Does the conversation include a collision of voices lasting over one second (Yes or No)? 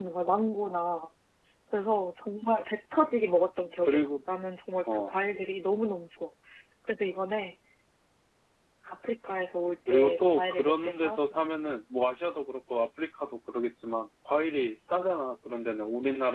Yes